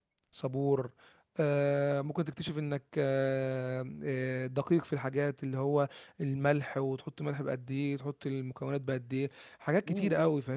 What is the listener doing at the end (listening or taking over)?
taking over